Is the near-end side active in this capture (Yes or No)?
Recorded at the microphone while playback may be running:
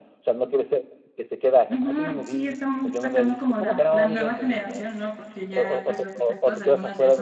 Yes